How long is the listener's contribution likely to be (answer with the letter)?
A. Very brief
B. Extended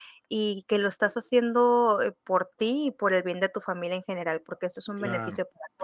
B